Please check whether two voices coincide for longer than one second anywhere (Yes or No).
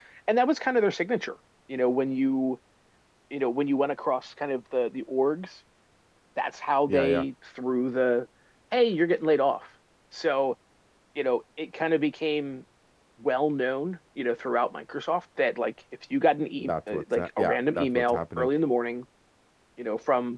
Yes